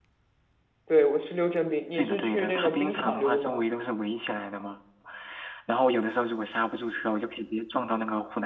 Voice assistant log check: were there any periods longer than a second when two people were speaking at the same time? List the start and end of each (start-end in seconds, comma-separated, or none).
2.0-3.6